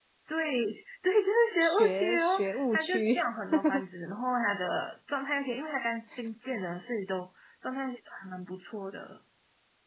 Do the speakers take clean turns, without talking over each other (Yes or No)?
No